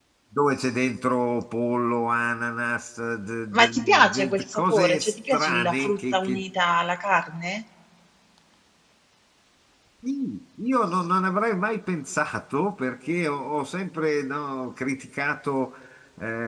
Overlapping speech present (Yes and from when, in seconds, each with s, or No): Yes, from 3.5 s